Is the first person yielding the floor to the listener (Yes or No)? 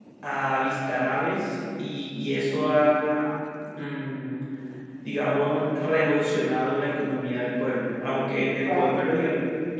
No